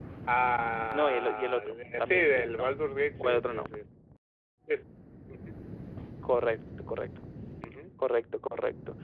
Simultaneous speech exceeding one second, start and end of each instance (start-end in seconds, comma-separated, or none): 0.9-2.8